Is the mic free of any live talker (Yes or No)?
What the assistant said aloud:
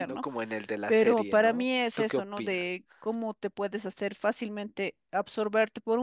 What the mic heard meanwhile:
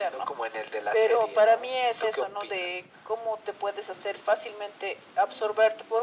Yes